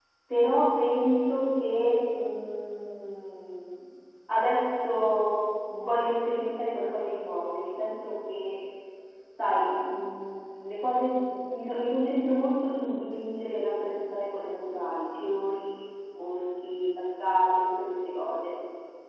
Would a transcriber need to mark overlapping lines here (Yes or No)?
No